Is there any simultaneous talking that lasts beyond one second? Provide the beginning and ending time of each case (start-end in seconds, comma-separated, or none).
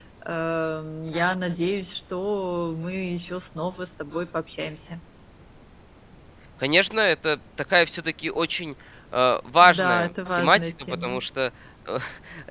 9.6-11.2